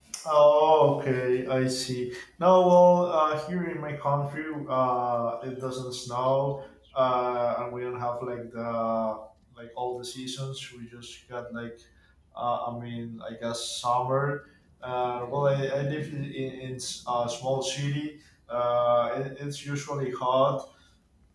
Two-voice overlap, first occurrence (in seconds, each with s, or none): none